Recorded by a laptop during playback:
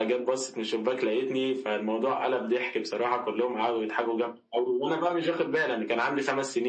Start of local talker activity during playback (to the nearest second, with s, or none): none